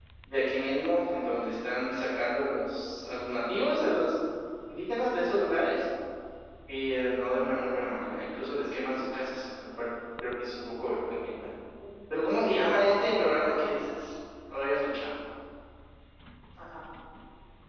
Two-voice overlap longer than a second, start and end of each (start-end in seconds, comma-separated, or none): 12.4-13.7